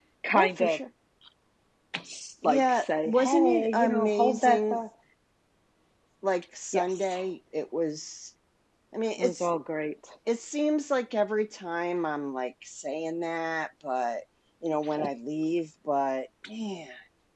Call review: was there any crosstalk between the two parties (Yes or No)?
Yes